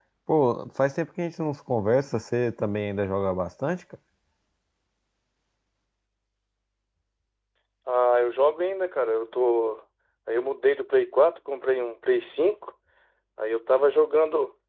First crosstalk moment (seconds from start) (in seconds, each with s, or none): none